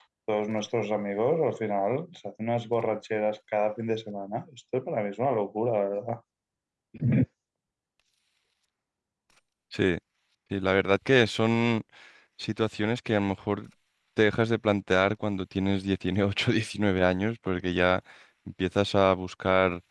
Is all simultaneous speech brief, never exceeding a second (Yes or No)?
Yes